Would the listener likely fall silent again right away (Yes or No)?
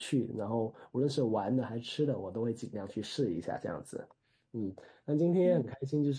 Yes